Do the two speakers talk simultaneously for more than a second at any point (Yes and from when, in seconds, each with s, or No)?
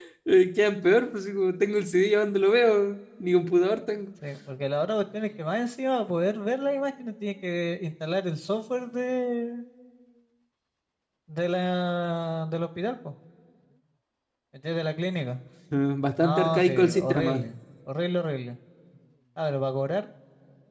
Yes, from 16.2 s